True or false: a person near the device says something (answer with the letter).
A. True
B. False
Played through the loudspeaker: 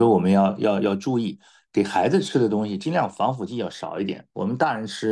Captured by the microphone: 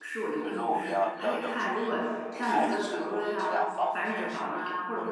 A